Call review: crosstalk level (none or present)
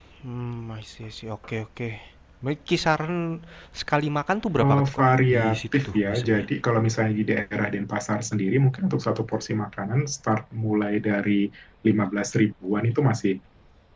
present